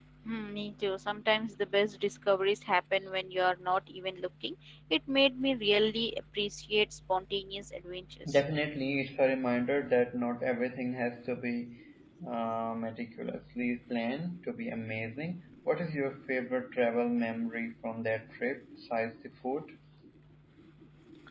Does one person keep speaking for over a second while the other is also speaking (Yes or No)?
No